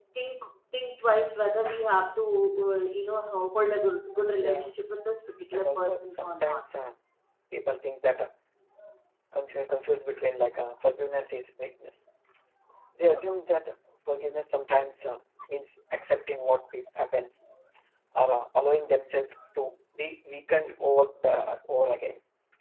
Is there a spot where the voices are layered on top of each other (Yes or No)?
Yes